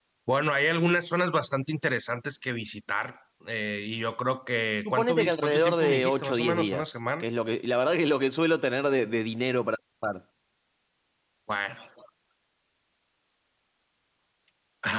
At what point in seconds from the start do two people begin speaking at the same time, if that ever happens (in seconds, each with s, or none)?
4.8 s